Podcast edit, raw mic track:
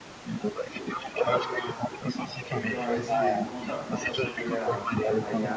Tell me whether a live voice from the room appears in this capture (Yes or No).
Yes